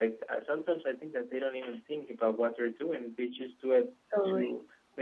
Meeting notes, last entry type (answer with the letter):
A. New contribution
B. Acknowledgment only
B